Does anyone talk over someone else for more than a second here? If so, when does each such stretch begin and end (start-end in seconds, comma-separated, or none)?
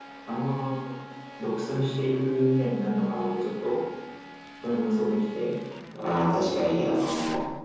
none